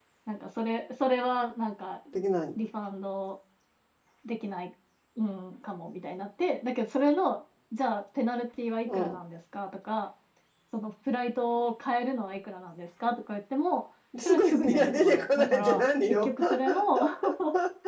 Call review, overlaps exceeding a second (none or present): present